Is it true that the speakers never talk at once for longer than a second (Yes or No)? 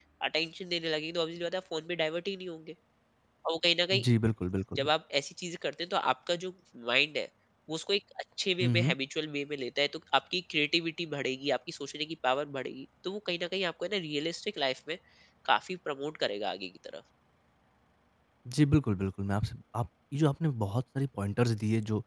Yes